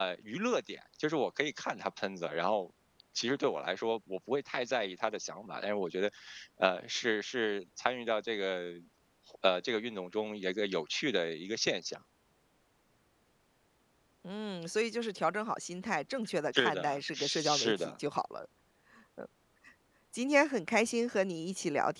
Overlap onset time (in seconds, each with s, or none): 16.5 s